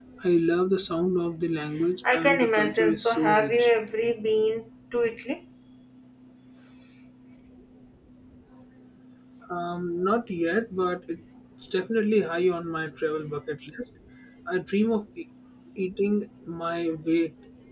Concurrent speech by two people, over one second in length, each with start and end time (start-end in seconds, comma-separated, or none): 2.1-3.7